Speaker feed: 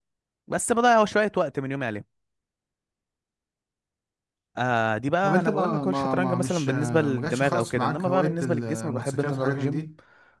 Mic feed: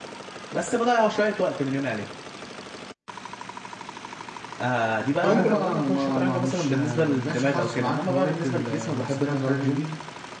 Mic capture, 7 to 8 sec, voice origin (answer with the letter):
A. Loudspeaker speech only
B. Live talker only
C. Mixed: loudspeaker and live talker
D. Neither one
A